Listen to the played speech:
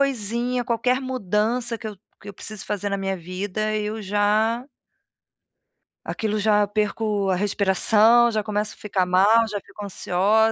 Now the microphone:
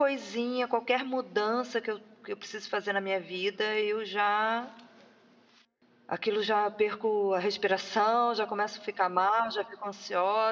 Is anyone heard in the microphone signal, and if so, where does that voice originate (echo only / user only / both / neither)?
echo only